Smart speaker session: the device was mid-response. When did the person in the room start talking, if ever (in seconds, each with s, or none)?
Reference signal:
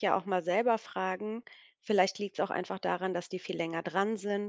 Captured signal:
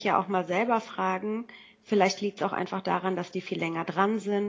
none